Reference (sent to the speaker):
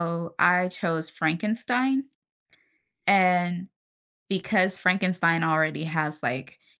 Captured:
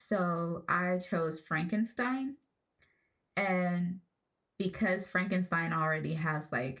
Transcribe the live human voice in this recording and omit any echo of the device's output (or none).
none